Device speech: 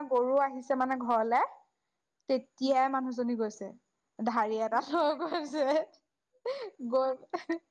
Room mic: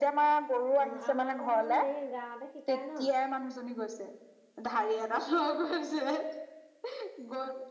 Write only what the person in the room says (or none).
অ আমাৰ আকৌ তোমাৰ এই গাঁৱতে শ। কাই ন